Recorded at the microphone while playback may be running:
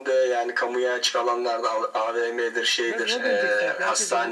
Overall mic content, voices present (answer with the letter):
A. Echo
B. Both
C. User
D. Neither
B